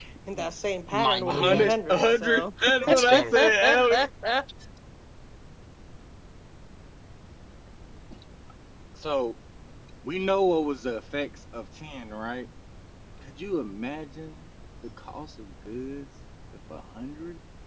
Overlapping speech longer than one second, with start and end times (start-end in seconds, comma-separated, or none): 0.9-4.0